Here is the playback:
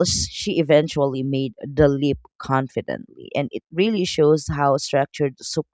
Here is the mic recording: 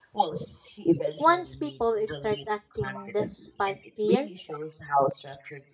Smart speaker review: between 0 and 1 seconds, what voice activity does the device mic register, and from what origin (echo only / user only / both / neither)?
echo only